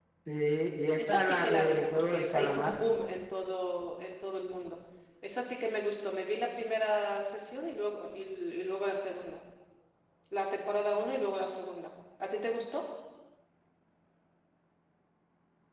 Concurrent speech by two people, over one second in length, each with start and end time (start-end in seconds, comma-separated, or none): 1.0-2.8